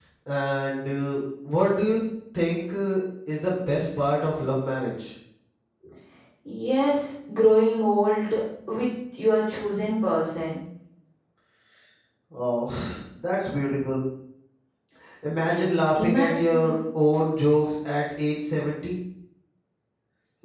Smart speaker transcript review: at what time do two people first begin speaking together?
15.3 s

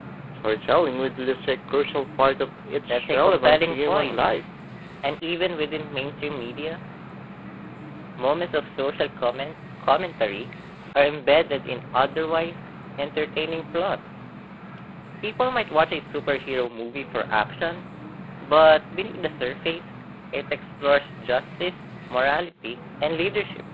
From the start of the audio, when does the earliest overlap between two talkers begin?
2.9 s

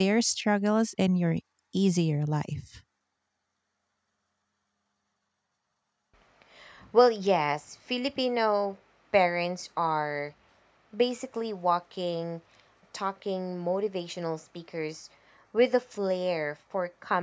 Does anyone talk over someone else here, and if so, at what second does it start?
none

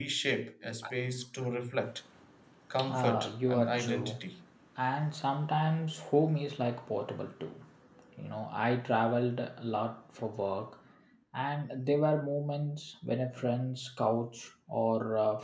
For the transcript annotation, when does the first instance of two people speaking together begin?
2.9 s

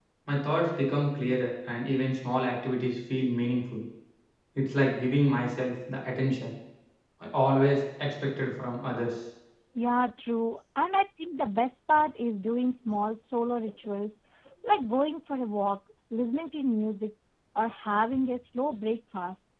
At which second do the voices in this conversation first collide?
none

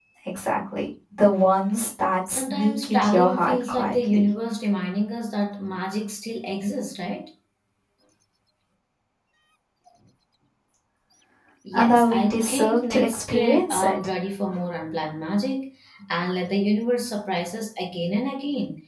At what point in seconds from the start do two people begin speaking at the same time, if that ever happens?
2.3 s

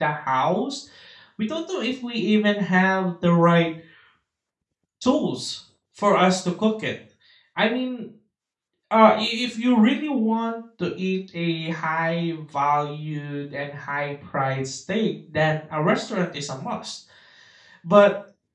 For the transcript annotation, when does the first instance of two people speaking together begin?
none

